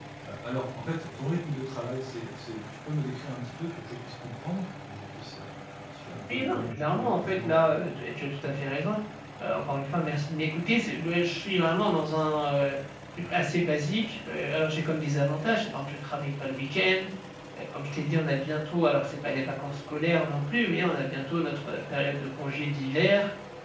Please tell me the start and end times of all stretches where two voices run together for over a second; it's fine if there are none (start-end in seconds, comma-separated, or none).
6.3-7.9